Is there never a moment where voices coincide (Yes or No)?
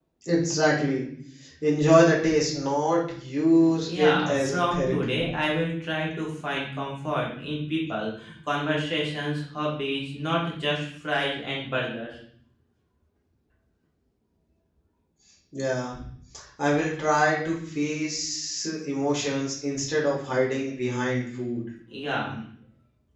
No